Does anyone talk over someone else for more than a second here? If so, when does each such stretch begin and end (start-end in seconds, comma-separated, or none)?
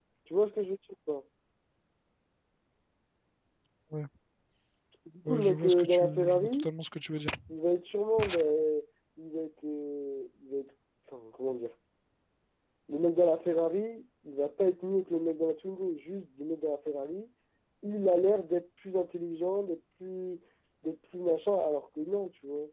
5.2-6.7